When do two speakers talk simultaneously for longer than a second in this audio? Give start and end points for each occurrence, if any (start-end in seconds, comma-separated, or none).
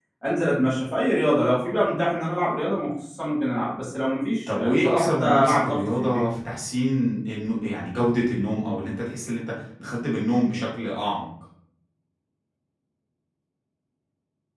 4.6-6.2